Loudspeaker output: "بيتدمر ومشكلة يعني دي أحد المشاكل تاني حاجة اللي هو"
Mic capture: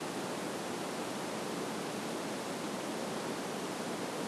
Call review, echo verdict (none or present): none